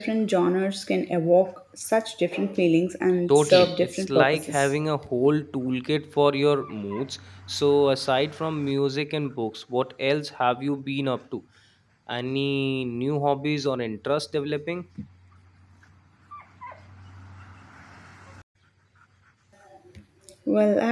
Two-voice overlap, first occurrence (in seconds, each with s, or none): 3.3 s